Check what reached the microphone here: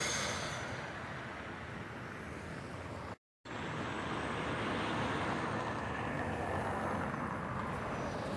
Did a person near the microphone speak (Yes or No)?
No